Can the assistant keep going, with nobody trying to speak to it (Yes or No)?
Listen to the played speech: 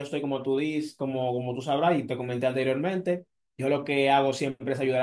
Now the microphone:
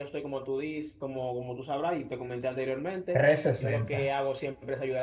No